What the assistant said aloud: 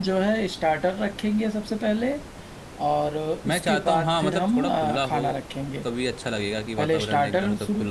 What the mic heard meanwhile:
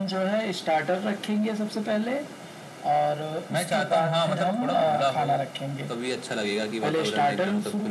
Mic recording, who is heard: echo only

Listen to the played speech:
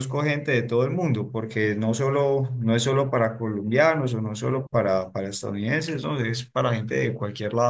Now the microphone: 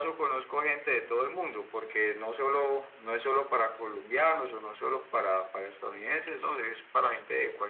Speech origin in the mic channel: echo only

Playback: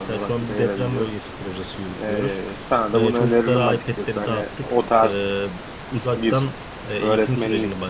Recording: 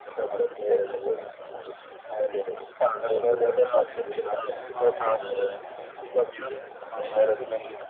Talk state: both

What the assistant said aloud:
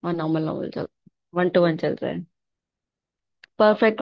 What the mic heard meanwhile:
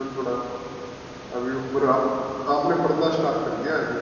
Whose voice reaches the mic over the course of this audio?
user only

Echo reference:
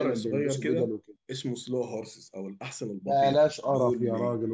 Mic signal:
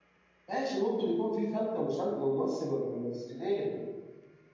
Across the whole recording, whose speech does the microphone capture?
user only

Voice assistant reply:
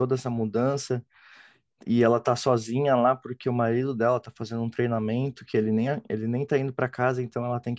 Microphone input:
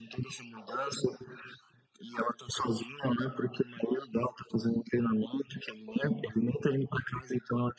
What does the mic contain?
echo only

